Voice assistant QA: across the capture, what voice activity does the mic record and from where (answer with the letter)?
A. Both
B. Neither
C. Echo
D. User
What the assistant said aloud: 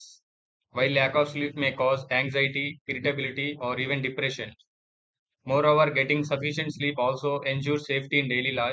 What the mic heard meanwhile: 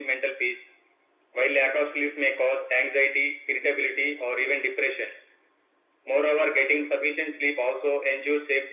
C